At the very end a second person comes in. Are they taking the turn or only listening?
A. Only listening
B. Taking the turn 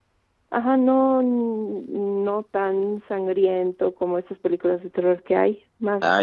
B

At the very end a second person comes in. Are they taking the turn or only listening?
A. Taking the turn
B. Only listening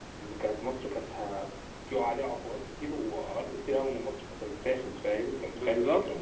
A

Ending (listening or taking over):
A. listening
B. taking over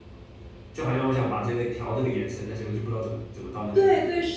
B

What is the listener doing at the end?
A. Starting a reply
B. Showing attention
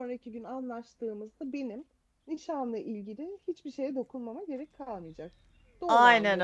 A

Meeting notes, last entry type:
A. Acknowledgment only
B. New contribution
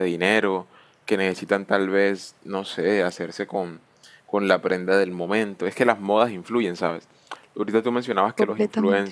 A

